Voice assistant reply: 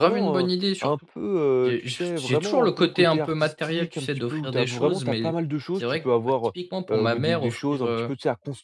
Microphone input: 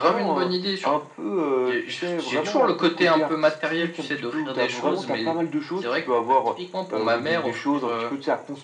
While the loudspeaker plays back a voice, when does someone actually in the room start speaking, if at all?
none

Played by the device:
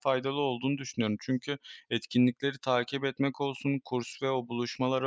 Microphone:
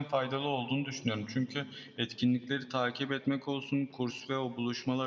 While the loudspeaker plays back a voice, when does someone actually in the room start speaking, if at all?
none

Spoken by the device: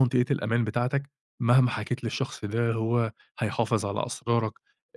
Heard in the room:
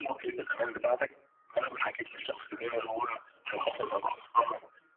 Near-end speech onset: none

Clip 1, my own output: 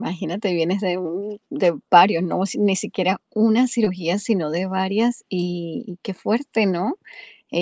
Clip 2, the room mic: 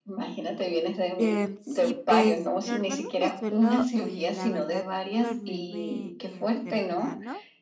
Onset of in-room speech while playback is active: 1.2 s

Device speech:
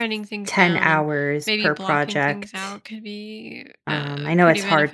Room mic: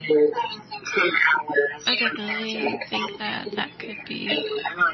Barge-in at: 1.9 s

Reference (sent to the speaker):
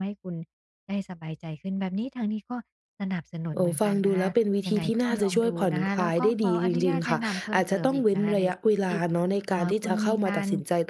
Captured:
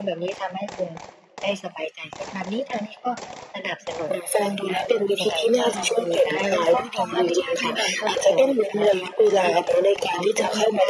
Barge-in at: none

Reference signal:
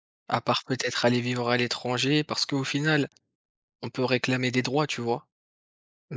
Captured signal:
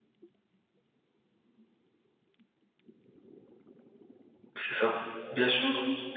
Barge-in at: 4.5 s

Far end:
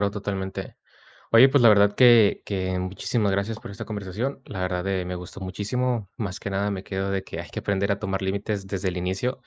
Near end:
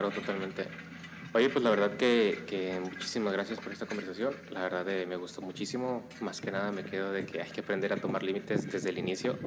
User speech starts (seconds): none

